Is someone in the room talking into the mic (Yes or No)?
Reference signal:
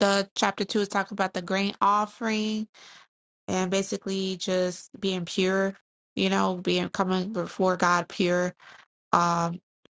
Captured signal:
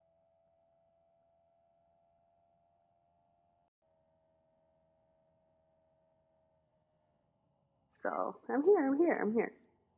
Yes